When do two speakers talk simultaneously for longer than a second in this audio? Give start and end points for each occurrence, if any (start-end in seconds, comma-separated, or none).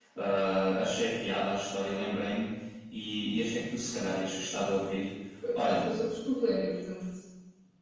none